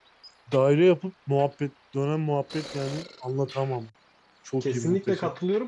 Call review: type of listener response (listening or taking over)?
taking over